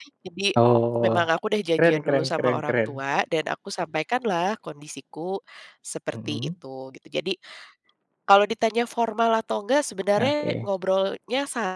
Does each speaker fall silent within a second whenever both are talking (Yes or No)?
No